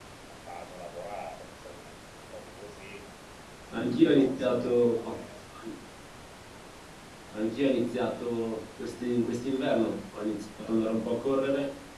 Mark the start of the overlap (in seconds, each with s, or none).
3.8 s